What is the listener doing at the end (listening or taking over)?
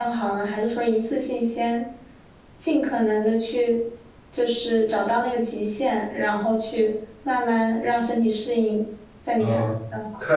taking over